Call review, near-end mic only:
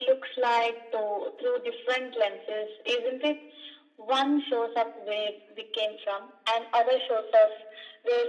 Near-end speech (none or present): none